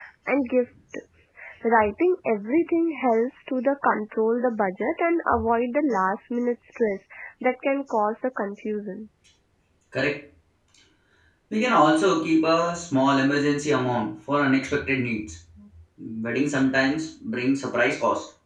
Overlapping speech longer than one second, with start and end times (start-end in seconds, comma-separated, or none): none